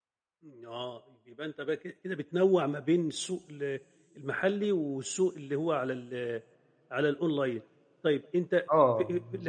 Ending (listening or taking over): listening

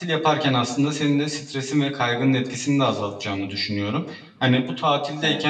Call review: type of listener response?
listening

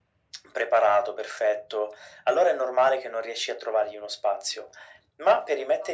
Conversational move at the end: listening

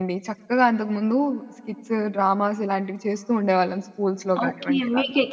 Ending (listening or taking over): taking over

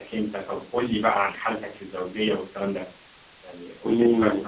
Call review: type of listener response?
taking over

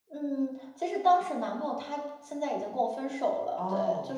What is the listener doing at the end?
taking over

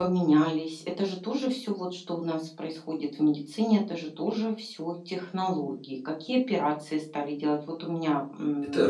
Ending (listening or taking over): taking over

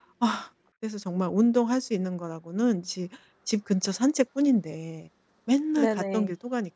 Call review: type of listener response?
listening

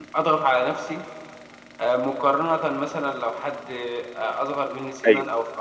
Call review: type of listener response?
listening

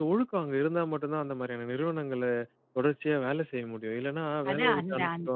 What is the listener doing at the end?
taking over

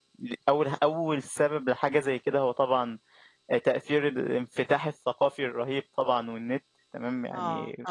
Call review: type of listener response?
listening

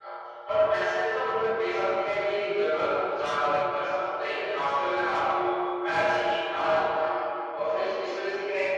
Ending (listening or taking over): listening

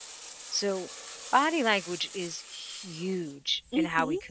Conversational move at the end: listening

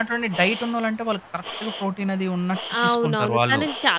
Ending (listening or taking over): taking over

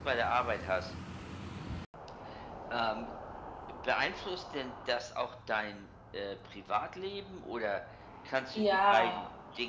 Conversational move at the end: listening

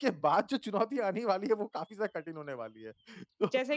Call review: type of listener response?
listening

